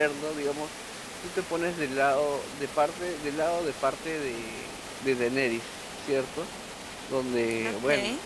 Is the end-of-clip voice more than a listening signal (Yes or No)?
No